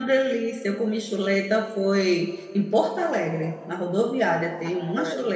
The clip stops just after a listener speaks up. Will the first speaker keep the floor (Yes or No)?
No